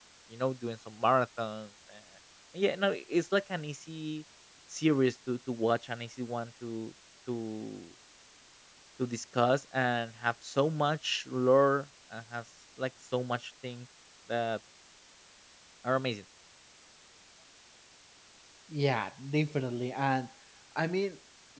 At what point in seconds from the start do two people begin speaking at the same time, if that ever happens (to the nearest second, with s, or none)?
none